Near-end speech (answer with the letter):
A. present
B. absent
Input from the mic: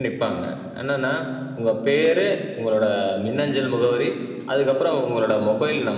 A